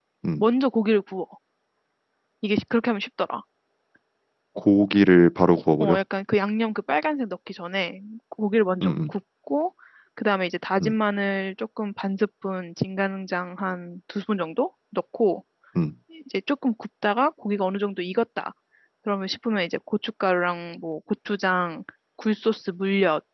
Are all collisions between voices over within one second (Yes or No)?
Yes